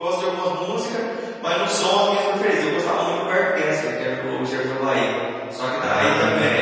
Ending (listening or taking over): listening